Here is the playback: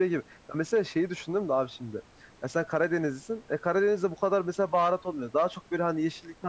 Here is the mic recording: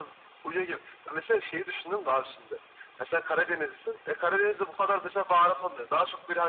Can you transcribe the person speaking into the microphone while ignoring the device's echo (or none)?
none